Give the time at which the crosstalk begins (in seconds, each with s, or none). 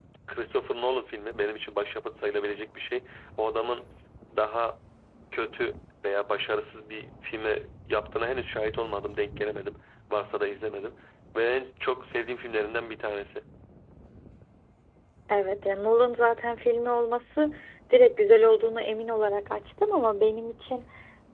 none